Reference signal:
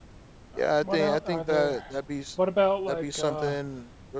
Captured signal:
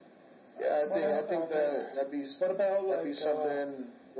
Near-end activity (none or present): none